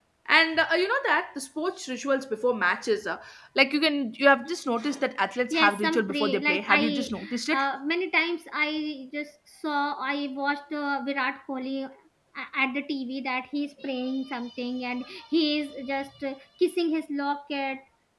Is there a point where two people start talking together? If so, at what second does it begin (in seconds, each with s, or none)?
5.5 s